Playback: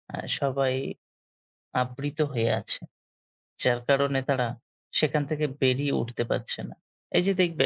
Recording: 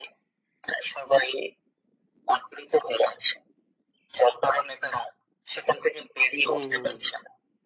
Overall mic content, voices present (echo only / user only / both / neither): both